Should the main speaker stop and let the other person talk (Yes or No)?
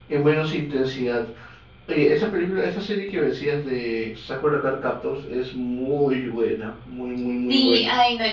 Yes